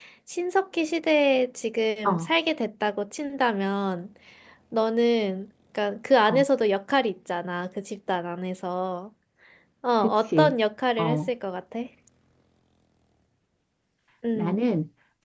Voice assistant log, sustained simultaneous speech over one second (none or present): none